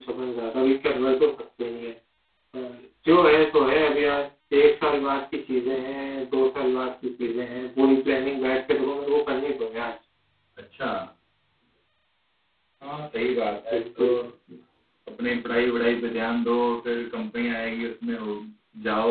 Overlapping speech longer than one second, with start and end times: none

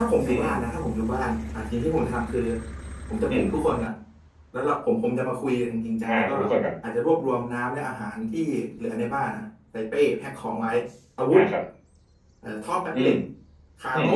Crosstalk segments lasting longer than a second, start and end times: none

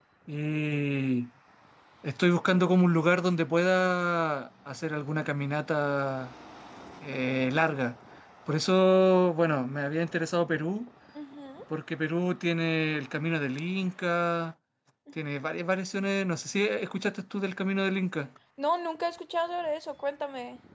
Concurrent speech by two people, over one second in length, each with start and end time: none

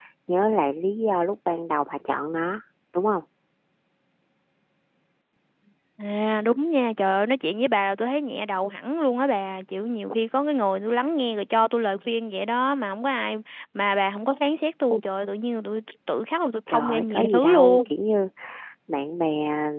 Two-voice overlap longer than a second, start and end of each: 16.7-17.9

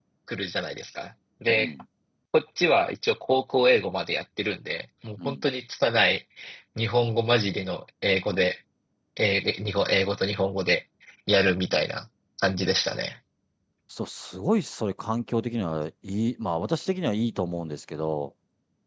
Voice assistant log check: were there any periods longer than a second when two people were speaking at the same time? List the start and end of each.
none

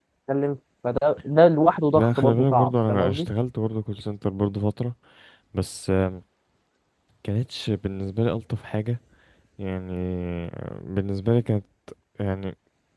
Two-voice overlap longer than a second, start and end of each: 1.9-3.3

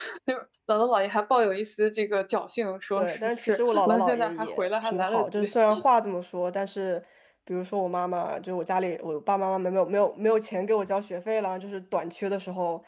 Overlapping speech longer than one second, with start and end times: 3.0-5.4

